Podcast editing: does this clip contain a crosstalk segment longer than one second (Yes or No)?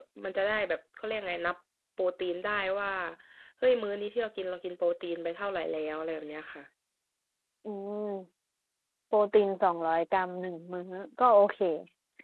No